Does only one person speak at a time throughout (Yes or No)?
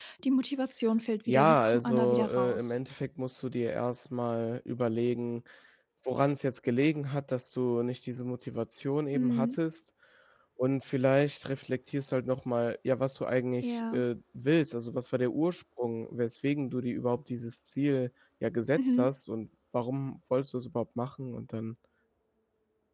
No